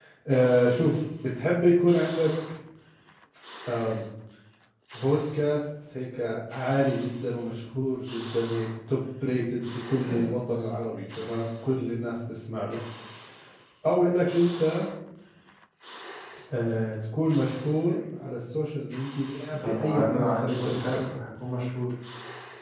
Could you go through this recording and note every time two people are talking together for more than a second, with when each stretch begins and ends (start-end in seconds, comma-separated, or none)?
19.6-21.2